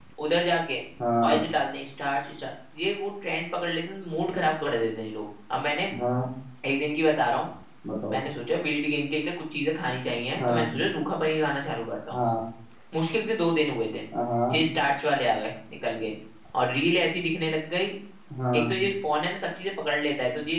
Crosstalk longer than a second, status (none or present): none